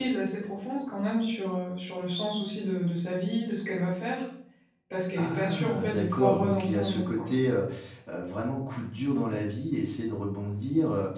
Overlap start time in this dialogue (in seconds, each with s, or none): 5.2 s